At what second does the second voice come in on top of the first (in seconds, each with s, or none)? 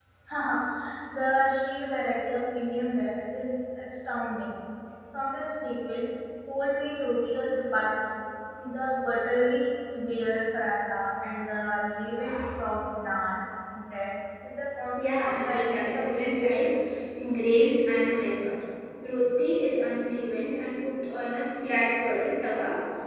15.0 s